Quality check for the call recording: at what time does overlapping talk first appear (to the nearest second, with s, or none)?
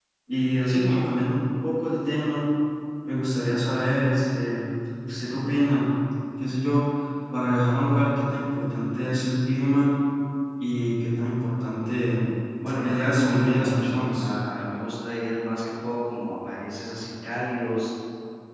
13 s